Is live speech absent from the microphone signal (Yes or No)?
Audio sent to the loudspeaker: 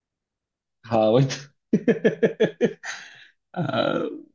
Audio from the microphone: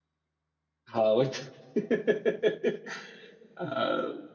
Yes